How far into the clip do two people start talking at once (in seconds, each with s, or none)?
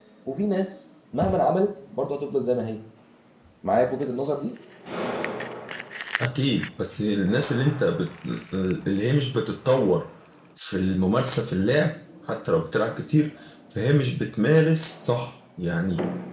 none